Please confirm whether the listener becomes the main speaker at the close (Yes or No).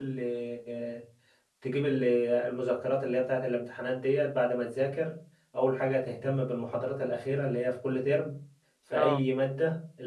No